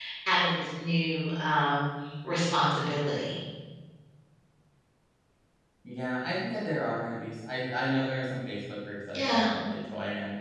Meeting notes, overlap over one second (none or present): none